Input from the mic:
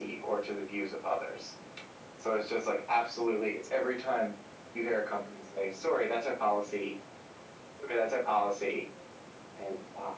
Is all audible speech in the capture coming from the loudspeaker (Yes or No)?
Yes